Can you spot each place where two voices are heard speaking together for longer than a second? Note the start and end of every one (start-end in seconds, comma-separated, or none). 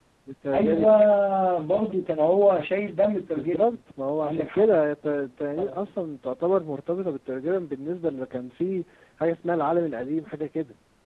none